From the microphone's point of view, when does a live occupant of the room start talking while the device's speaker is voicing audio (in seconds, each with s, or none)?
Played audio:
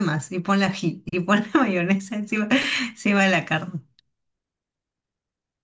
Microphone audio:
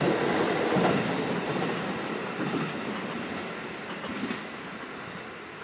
none